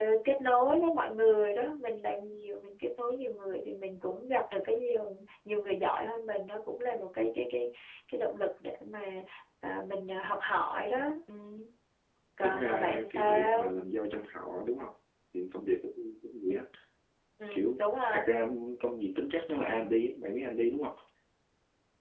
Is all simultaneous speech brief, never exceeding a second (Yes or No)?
No